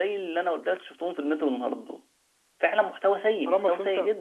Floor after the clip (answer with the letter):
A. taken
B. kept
A